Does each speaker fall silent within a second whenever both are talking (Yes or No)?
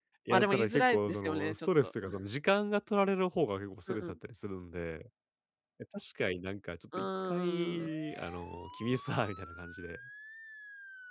No